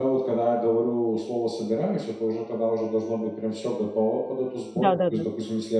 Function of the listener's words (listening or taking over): listening